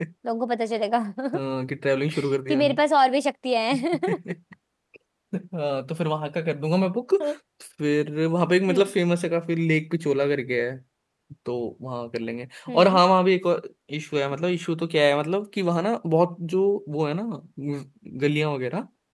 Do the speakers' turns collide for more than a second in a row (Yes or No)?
No